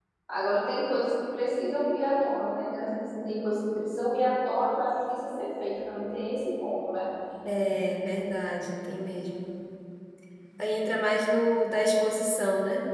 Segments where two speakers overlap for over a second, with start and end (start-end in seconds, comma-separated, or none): none